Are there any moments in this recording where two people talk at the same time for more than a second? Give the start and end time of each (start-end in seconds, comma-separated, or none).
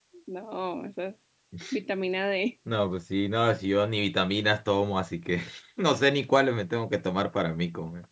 none